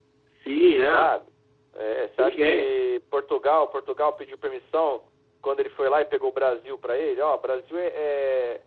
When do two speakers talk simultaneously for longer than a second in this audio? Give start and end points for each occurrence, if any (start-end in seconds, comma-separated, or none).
none